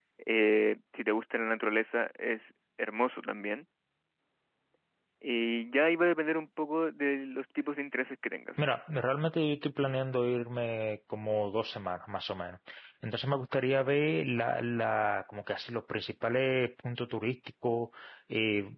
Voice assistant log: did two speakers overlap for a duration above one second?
No

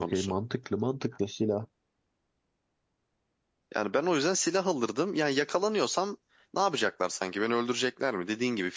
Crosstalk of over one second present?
No

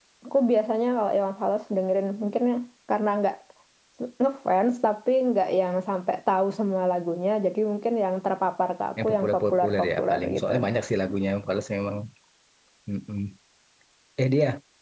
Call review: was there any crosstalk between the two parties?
Yes, from 9.0 s

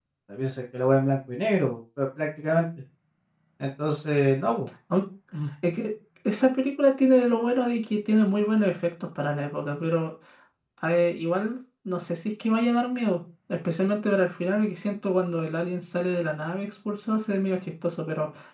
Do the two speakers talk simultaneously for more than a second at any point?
No

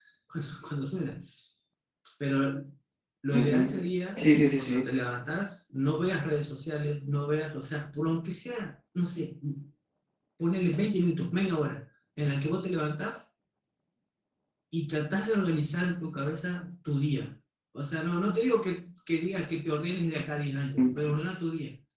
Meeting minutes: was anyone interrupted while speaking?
Yes, from 3.3 s

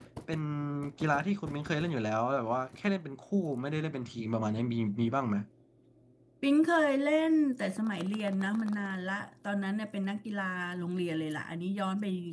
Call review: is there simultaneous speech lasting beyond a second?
No

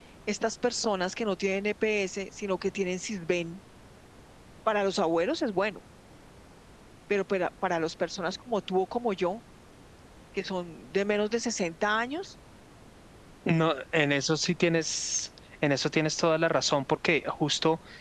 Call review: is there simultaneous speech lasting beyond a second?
No

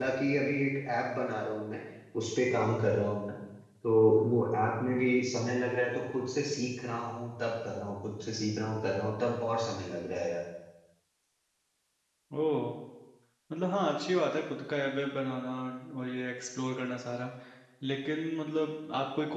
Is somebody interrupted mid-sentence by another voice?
No

